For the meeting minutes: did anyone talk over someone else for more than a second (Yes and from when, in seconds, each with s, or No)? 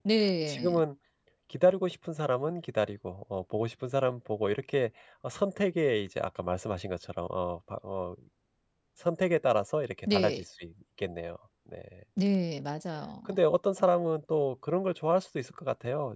No